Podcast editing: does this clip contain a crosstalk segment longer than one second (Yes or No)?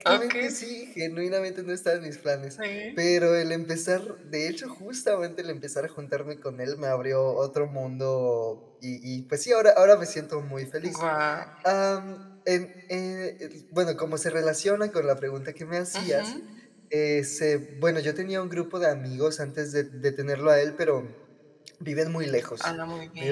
No